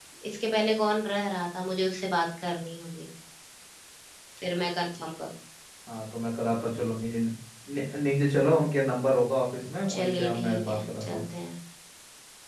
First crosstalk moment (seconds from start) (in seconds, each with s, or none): 9.9 s